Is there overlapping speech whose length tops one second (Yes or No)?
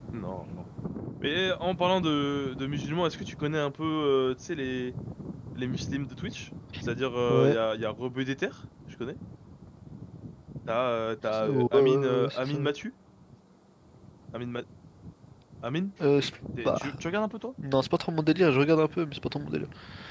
Yes